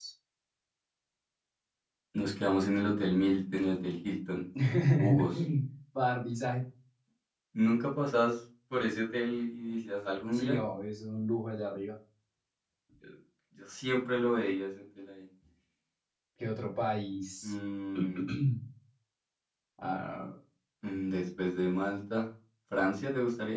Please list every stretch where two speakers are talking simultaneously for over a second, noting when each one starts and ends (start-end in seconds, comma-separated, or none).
none